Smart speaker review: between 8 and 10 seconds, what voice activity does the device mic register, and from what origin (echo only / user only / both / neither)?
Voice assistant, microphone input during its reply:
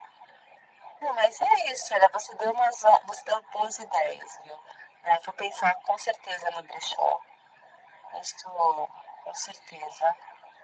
echo only